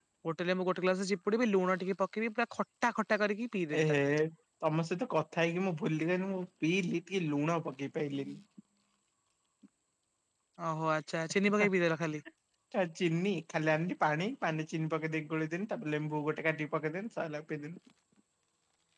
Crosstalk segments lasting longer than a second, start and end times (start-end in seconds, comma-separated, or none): none